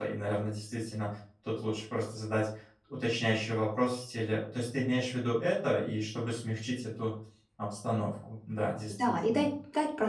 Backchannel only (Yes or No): No